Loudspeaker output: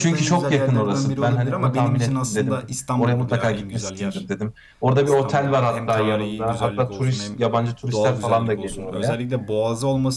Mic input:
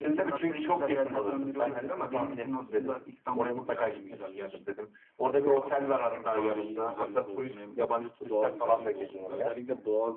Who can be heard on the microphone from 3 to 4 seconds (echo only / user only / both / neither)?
echo only